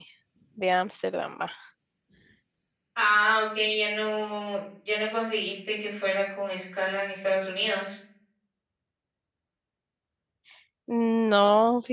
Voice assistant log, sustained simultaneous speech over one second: none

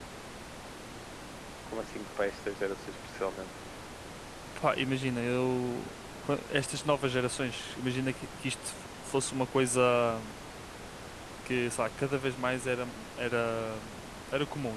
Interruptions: none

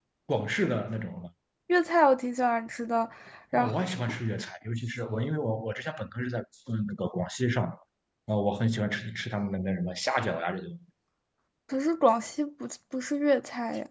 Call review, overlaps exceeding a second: none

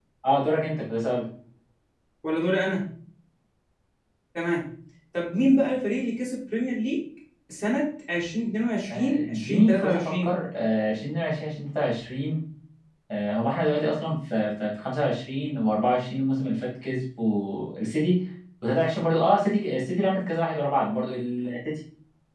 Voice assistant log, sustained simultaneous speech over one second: present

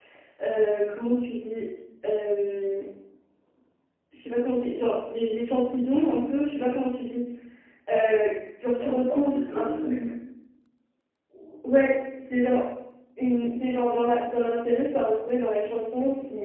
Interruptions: present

